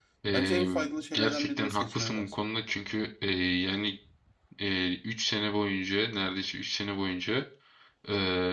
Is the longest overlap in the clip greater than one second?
Yes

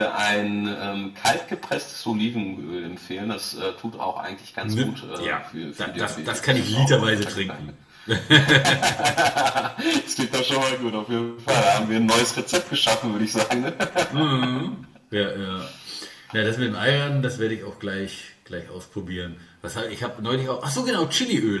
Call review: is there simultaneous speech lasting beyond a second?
Yes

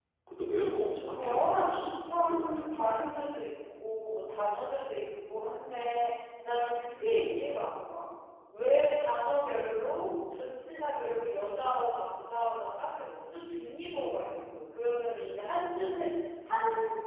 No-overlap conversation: No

